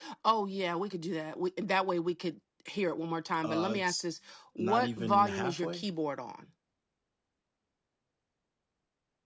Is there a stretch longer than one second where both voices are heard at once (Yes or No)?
Yes